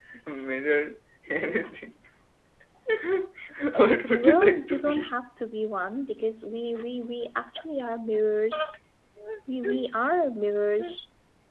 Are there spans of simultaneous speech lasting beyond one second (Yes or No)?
Yes